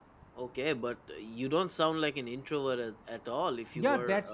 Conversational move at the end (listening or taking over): taking over